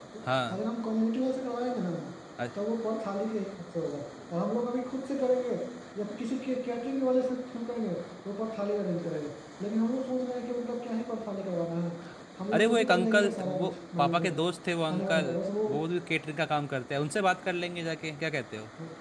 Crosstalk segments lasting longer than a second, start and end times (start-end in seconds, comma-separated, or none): 12.5-14.4